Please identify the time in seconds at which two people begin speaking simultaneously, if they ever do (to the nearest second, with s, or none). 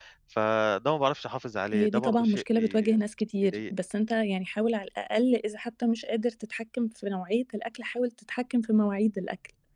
2 s